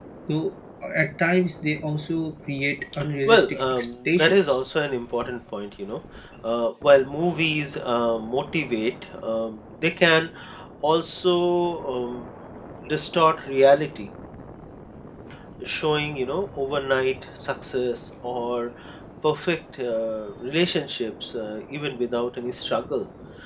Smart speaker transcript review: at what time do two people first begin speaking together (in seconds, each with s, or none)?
3.3 s